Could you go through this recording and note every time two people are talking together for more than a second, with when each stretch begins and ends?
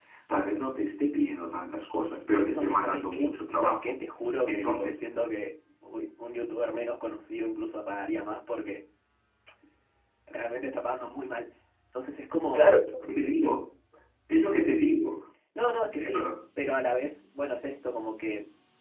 2.5-4.0

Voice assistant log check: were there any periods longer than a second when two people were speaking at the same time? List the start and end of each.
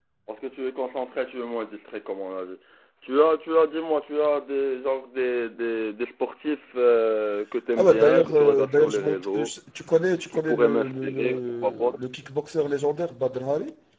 7.8-9.5, 10.3-11.9

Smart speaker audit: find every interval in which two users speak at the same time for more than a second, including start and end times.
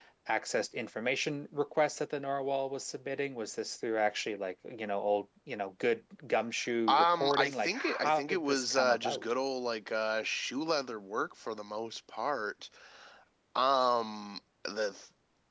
6.9-9.2

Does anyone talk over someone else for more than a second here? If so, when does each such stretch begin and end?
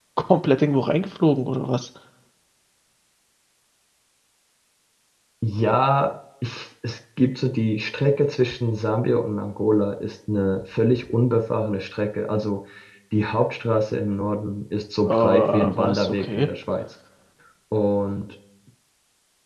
15.1-16.5

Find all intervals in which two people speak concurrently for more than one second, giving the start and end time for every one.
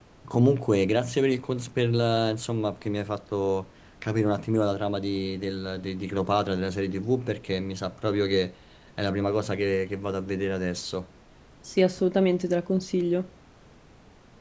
none

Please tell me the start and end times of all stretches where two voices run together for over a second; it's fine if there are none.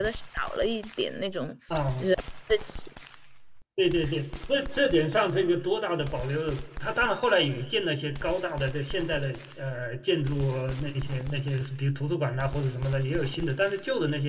none

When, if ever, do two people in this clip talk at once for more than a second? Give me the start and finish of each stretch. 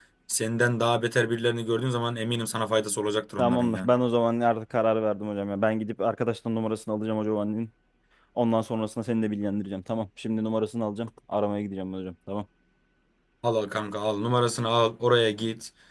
none

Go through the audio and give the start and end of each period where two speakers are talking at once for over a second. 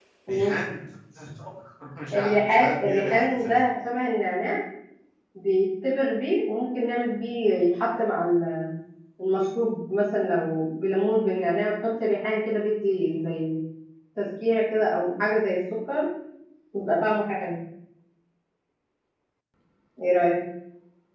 2.1-3.5

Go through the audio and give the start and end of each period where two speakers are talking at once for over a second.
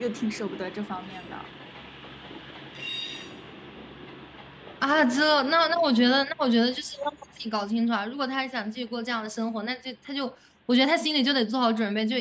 none

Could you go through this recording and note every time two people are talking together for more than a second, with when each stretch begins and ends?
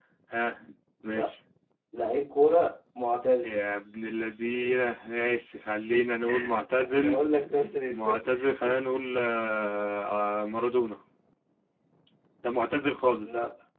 none

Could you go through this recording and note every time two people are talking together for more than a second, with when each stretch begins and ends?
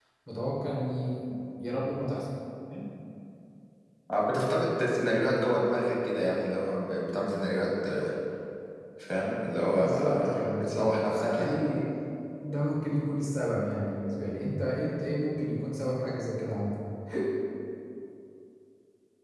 9.8-11.6

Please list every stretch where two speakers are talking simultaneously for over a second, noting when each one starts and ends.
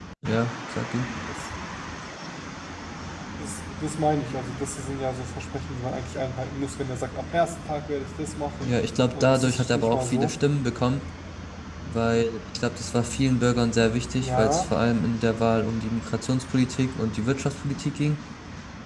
9.1-10.3

